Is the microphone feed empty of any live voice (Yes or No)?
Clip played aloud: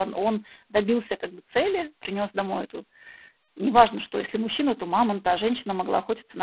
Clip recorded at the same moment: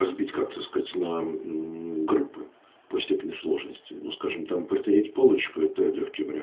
No